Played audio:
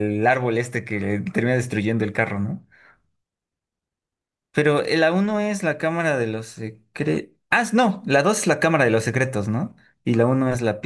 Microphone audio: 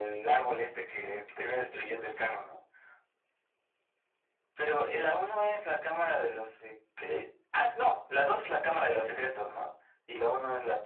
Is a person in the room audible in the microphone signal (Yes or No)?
No